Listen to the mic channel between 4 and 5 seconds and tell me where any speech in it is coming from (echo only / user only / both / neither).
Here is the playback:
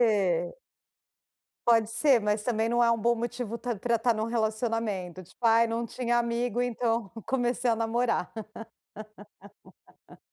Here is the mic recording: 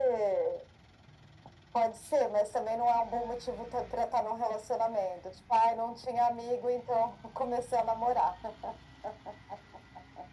echo only